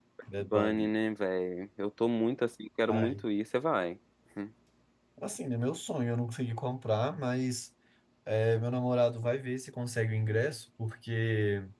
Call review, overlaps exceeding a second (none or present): none